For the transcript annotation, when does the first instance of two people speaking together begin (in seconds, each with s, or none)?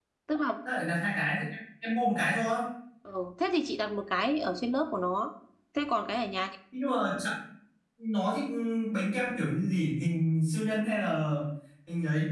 none